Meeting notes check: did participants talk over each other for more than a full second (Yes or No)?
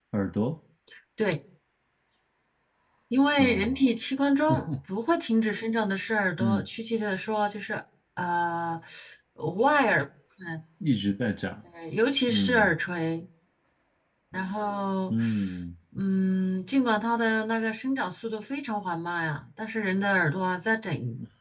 No